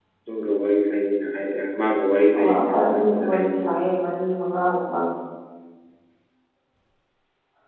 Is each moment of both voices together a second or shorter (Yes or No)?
No